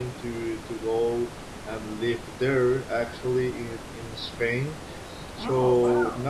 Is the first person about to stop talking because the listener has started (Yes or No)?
No